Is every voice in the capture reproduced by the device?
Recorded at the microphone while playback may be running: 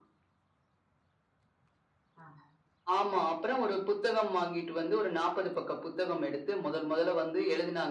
Yes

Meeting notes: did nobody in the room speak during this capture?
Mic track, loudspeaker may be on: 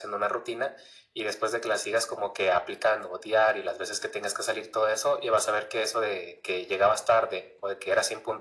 Yes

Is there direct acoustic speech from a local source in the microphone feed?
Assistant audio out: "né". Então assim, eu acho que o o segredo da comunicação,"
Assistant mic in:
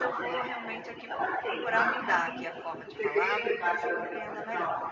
Yes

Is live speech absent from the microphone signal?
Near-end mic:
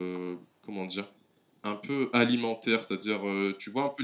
No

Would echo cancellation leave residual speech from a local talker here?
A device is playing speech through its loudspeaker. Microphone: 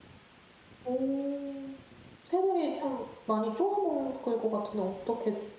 Yes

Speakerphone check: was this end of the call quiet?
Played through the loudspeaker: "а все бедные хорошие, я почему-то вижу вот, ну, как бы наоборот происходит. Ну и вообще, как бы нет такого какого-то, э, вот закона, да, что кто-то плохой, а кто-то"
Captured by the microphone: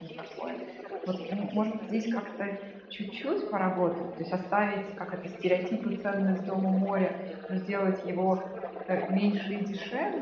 No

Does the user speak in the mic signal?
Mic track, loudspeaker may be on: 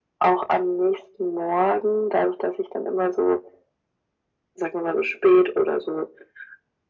No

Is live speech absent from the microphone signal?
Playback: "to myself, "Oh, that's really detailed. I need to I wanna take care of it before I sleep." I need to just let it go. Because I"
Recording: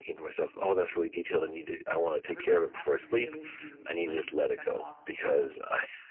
No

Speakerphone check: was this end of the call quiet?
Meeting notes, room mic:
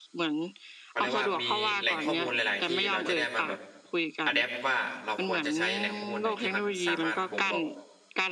No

